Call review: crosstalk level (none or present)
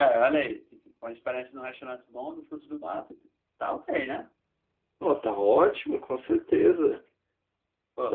none